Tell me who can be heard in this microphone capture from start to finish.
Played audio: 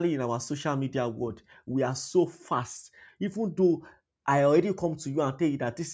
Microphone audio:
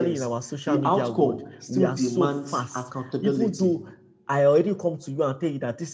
both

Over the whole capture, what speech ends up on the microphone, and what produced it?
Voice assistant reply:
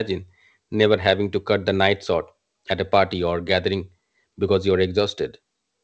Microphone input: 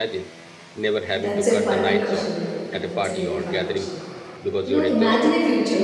both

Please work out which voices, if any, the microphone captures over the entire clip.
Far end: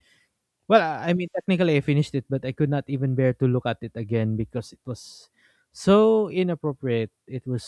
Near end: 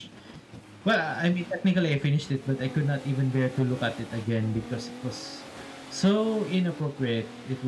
echo only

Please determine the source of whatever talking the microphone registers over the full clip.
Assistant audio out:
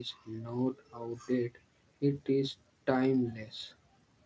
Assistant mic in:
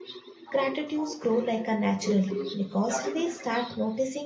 both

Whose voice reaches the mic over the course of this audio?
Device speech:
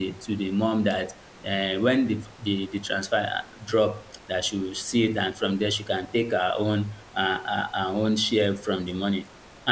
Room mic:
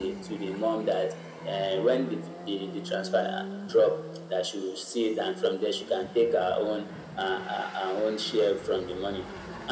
echo only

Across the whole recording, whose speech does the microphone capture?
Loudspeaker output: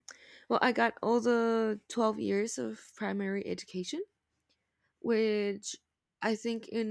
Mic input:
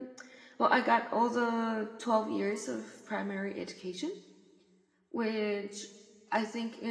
echo only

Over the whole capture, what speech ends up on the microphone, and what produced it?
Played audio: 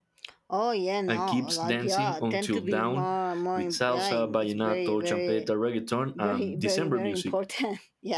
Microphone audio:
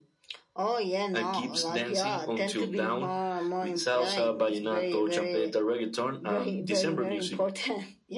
echo only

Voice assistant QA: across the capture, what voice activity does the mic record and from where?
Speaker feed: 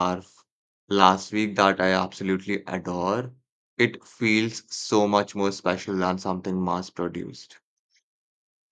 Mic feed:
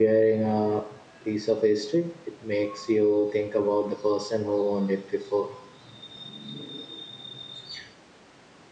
user only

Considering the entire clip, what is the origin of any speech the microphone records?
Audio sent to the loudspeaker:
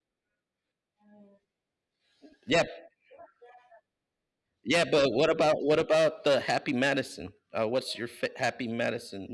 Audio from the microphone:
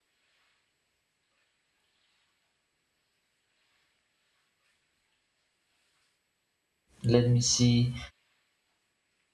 user only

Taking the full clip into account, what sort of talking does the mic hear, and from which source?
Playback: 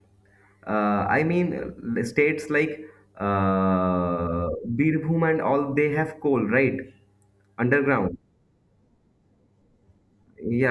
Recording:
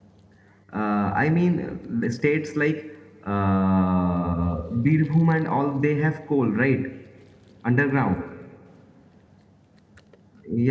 echo only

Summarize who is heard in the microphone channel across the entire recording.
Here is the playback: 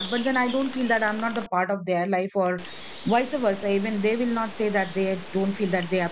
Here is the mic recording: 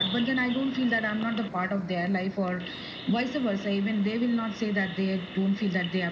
echo only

